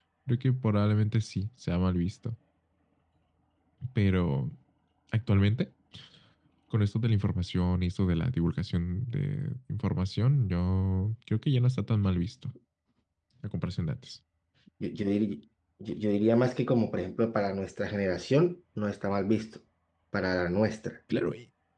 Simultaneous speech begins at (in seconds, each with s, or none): none